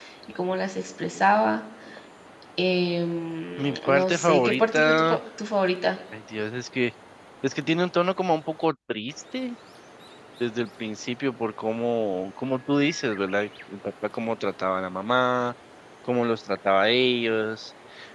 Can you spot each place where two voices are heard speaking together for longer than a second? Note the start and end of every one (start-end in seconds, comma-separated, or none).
3.6-5.2